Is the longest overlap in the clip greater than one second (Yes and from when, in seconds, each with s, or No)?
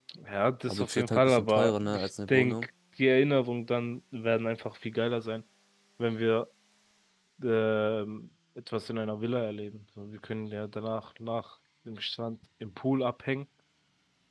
Yes, from 0.7 s